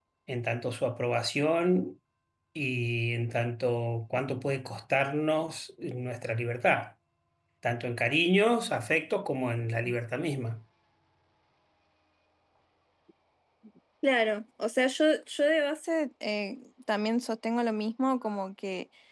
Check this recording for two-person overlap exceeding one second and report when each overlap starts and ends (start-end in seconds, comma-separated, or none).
none